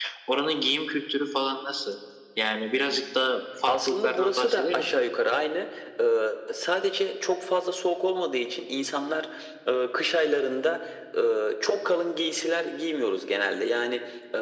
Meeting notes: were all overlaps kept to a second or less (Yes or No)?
No